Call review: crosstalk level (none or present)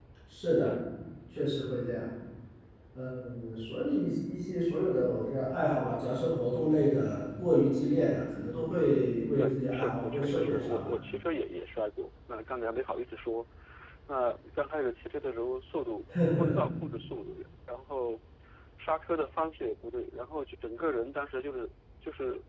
present